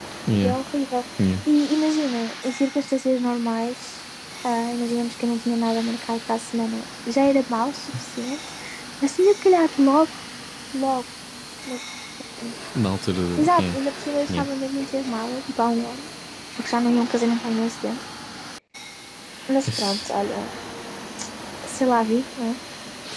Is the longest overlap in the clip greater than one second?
No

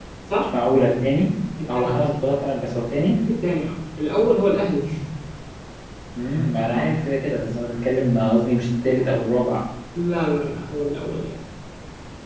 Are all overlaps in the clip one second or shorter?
Yes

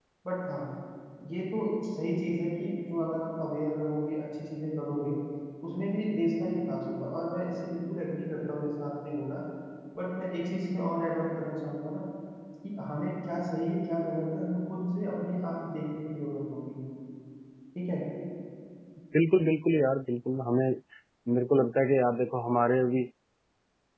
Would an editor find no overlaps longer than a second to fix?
Yes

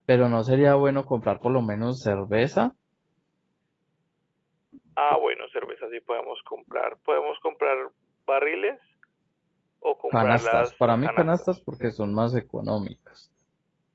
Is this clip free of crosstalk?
No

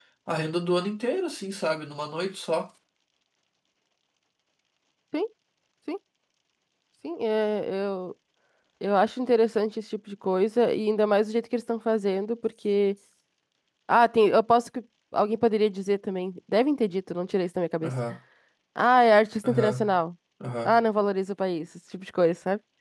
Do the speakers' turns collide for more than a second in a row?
No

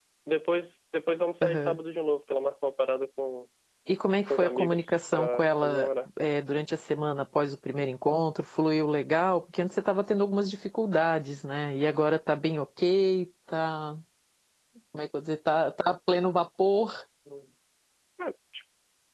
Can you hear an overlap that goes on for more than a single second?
Yes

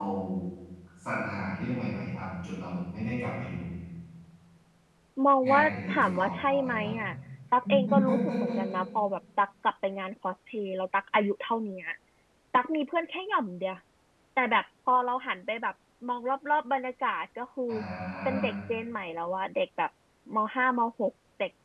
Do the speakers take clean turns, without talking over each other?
No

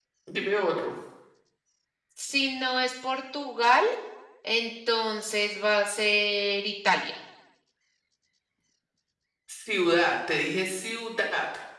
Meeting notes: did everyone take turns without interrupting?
Yes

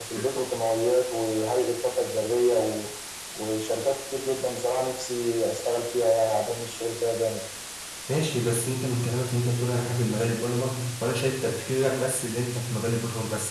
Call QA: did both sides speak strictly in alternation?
Yes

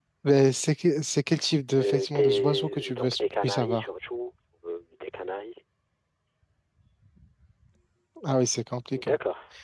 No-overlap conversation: No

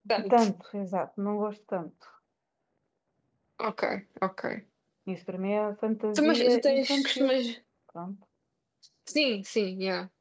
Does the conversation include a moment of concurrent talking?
Yes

